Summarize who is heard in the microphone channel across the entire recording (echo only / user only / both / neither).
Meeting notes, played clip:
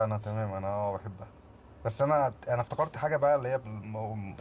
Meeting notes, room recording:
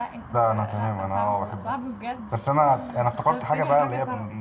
both